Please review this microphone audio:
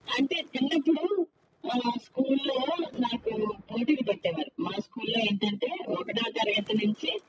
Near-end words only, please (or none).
none